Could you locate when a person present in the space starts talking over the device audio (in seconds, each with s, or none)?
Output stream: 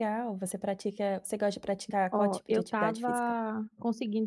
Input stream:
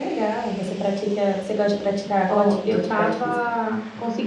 none